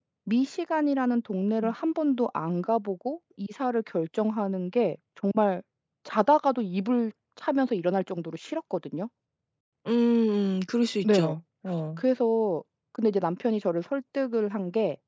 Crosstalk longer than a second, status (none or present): none